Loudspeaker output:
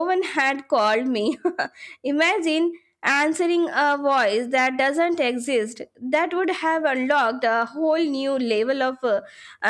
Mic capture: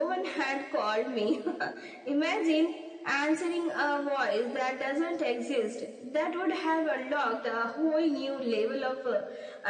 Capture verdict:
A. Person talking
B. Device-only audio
B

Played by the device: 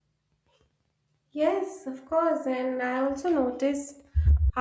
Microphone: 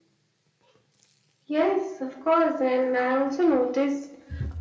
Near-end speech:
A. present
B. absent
B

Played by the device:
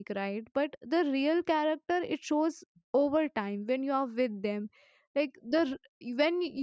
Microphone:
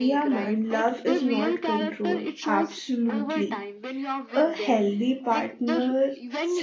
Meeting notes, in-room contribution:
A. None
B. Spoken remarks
B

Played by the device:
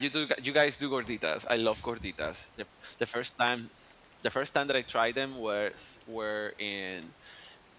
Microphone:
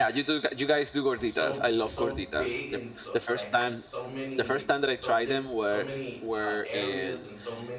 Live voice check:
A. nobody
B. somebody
B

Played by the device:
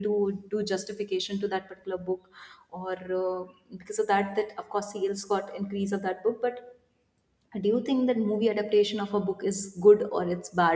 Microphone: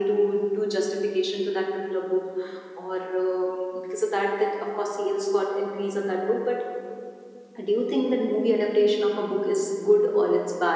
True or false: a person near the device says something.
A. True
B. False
B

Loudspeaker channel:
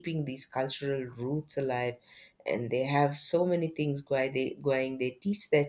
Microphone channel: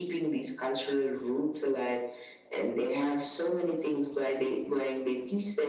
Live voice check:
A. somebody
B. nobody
B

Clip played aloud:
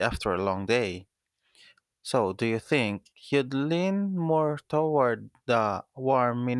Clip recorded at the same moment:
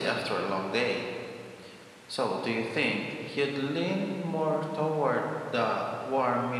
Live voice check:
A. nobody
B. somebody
A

